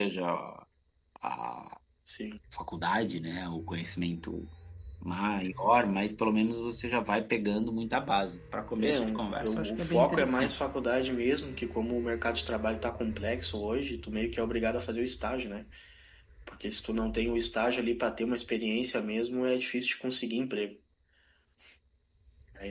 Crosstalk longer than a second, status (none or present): present